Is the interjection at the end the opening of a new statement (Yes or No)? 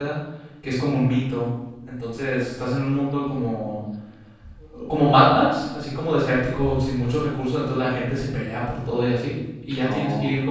No